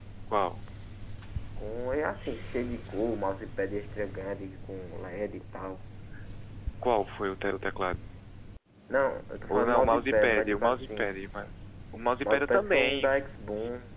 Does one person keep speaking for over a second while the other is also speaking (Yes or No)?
Yes